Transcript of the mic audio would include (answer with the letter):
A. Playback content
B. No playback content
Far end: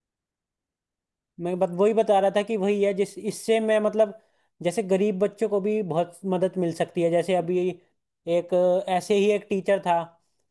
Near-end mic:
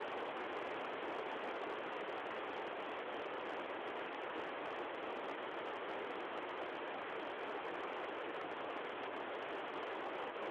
B